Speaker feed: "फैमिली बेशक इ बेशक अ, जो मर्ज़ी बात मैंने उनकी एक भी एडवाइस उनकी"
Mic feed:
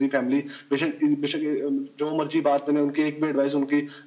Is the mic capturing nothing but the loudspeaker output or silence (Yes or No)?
Yes